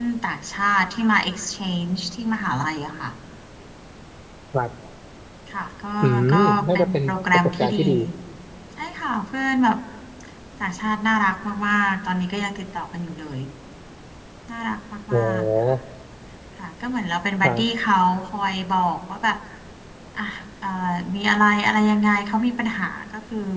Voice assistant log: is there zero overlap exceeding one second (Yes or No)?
No